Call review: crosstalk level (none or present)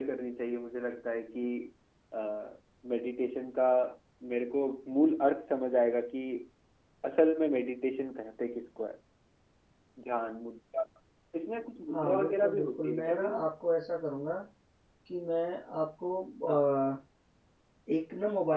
present